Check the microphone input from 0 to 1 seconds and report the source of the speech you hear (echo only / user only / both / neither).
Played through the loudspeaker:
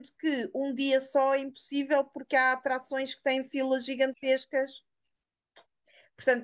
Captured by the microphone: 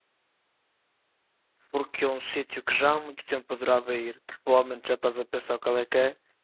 neither